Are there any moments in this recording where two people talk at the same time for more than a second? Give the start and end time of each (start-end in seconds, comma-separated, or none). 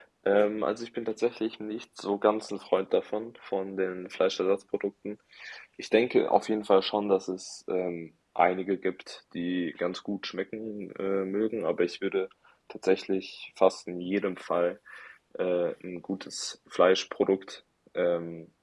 none